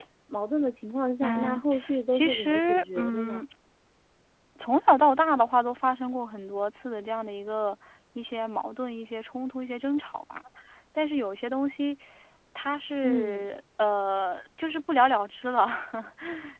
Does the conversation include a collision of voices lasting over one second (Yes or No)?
Yes